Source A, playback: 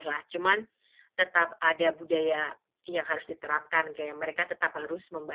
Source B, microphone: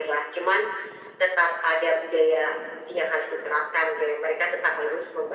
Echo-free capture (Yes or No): No